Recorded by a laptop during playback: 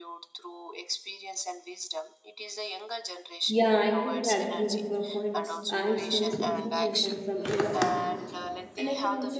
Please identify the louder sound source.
user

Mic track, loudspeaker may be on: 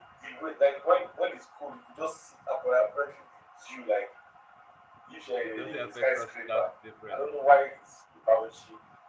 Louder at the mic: echo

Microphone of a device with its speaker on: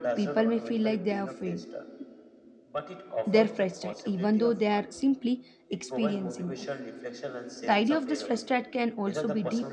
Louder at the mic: user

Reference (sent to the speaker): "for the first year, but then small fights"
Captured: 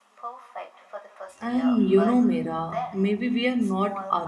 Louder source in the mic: user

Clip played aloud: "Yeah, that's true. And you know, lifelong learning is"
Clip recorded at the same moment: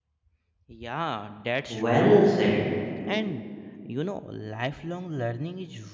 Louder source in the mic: user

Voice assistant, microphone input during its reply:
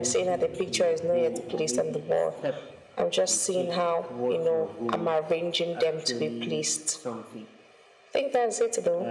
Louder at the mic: echo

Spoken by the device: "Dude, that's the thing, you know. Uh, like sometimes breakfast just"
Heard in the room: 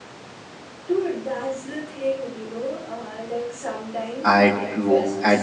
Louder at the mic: user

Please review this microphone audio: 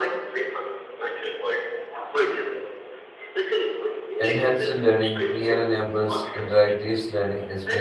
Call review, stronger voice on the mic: user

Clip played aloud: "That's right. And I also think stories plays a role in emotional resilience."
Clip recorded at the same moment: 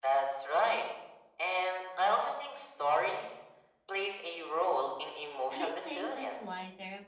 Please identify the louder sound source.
echo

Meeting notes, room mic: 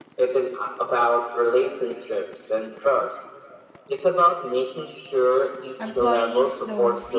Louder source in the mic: echo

